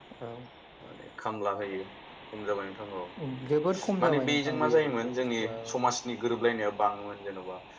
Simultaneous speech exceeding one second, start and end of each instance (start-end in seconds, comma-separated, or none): 4.0-5.5